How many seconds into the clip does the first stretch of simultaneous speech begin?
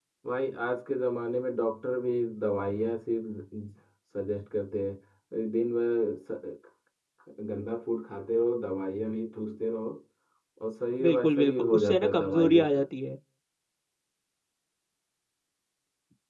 11.0 s

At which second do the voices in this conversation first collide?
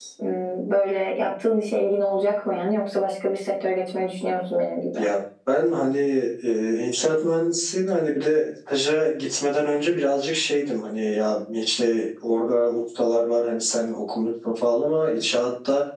none

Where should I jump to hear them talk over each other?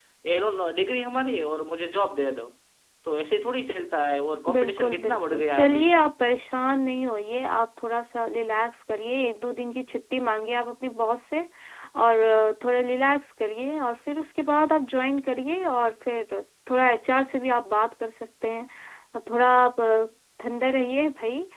4.5 s

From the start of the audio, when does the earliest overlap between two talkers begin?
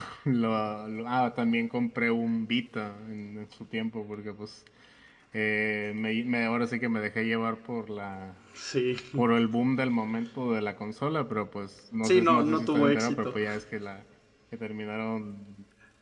12.0 s

